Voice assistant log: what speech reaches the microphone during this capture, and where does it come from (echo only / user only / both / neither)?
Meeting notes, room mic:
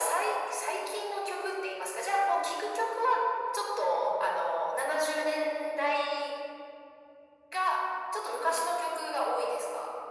echo only